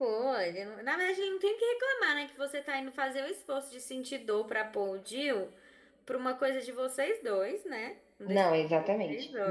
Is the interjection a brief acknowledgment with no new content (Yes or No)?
No